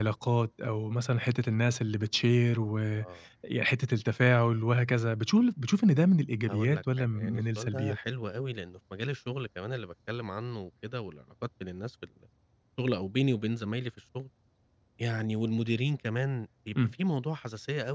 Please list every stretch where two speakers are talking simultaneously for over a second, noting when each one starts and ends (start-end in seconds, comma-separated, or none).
6.5-8.0